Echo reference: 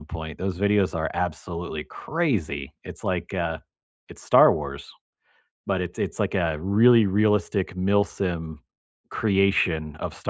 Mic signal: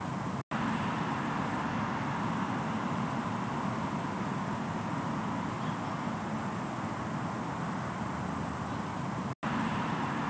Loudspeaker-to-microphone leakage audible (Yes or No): No